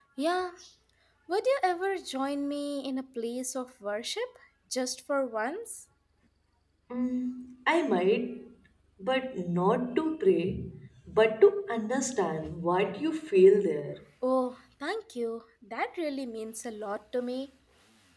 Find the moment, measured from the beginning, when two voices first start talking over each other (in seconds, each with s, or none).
none